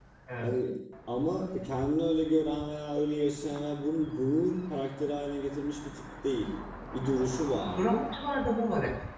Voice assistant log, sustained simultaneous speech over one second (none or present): none